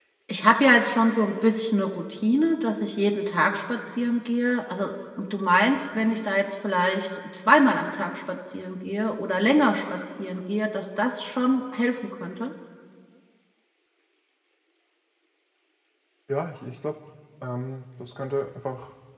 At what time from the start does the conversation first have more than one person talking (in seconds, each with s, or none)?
none